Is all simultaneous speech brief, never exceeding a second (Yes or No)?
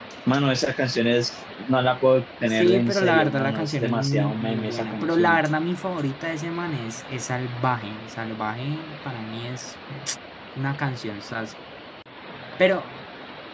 No